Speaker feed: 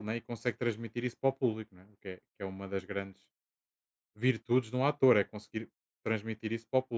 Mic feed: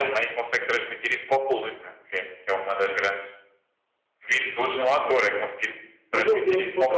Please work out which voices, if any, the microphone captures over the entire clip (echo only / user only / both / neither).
both